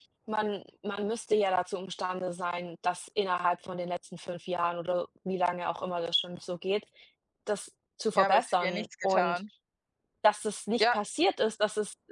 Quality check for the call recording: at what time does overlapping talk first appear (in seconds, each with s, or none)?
8.2 s